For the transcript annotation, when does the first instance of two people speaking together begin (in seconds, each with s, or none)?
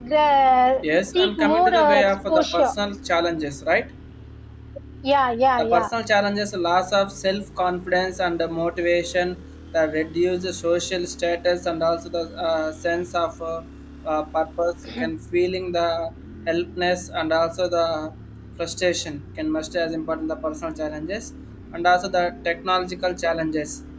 1.1 s